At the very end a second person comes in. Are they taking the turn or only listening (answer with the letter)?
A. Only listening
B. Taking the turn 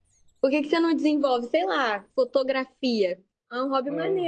B